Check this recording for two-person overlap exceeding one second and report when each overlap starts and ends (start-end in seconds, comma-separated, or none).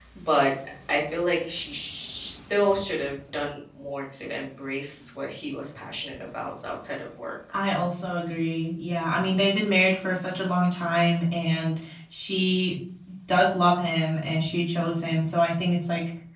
none